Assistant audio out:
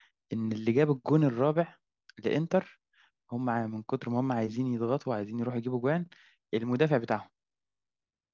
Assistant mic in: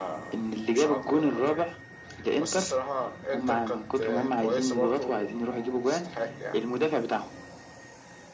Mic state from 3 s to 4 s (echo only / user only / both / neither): both